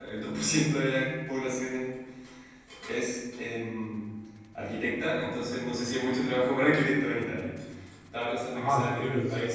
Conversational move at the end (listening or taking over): taking over